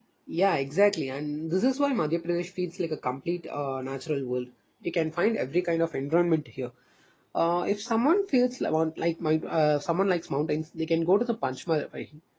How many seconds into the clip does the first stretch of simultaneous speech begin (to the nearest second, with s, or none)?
none